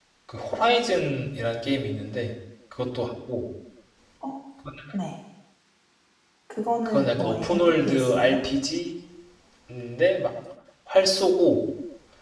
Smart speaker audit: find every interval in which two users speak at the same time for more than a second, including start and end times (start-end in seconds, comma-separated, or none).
6.8-8.4